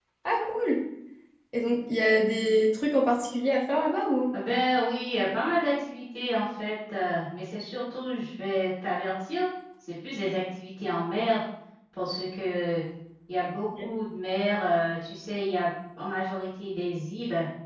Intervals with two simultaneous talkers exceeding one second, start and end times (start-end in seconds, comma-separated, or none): none